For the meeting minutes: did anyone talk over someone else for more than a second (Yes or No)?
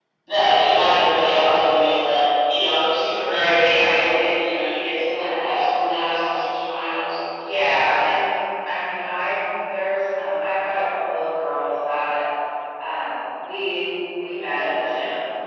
No